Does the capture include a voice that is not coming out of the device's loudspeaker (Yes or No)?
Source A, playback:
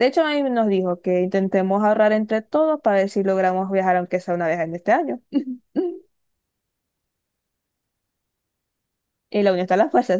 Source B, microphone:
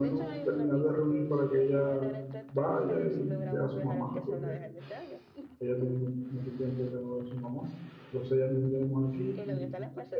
Yes